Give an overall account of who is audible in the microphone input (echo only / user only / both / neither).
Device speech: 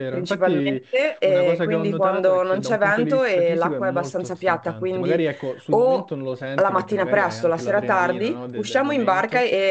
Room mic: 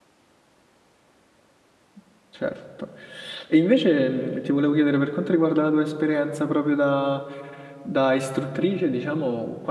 user only